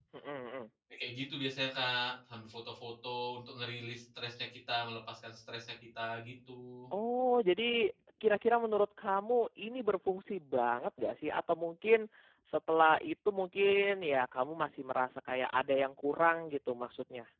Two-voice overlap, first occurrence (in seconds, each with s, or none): none